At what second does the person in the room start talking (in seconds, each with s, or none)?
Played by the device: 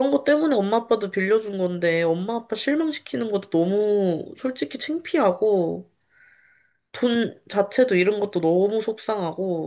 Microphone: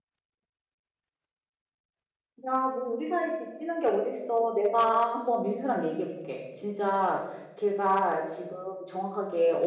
2.5 s